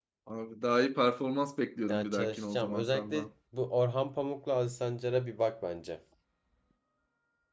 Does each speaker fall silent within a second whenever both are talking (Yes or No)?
No